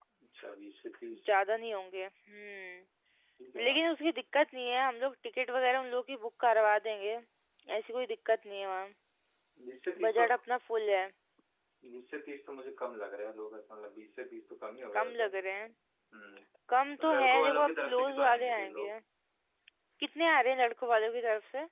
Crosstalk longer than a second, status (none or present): present